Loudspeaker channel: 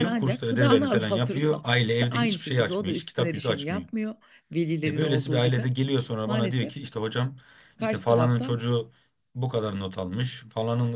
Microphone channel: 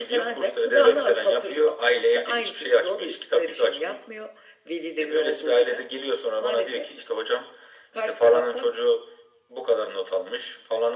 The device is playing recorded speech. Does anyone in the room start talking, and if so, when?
none

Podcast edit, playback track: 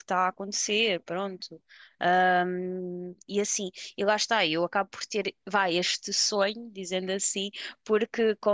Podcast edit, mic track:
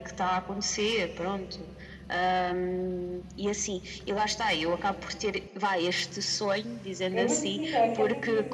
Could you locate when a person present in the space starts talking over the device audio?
7 s

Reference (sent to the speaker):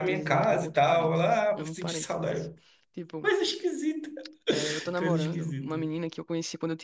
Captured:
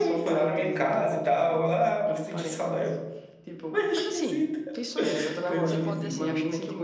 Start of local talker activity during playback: 4 s

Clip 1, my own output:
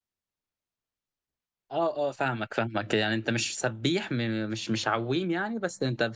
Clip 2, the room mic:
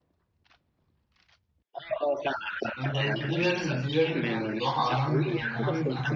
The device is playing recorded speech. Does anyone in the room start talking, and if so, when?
3 s

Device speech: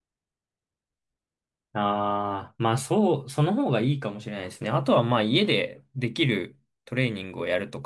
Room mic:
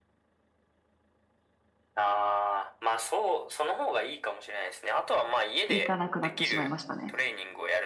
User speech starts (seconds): 6 s

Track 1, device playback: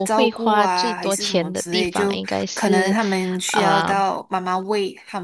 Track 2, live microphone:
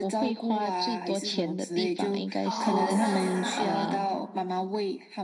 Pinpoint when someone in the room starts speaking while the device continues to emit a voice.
2 s

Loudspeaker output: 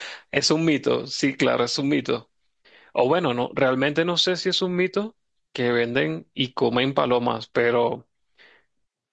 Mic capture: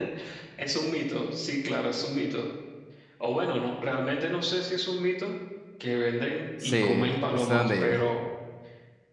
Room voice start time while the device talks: 7 s

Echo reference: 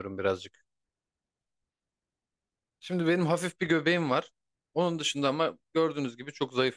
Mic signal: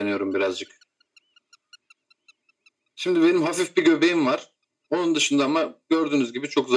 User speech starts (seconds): none

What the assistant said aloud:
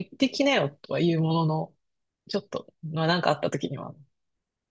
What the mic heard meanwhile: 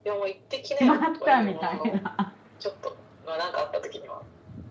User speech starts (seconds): 1 s

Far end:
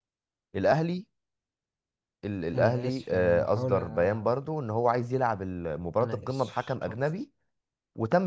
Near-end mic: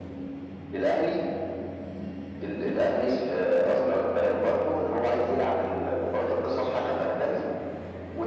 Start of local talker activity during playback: none

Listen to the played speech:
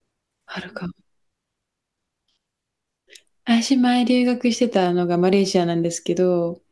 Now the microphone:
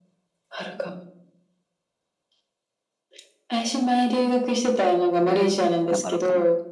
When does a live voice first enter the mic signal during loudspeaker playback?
5 s

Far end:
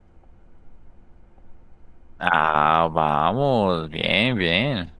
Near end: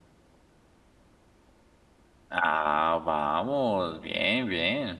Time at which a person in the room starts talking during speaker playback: none

